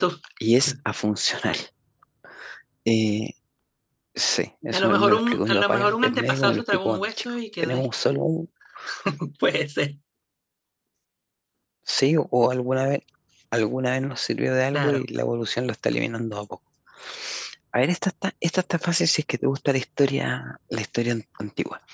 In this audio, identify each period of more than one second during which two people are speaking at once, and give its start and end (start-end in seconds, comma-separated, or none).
4.7-7.9